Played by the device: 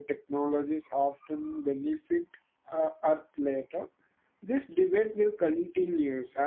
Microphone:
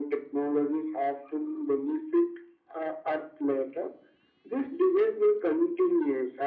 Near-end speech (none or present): none